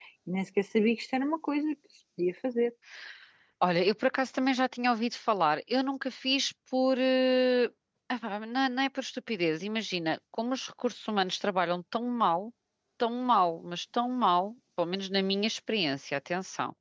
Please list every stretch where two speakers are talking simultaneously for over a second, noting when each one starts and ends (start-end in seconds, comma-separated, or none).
none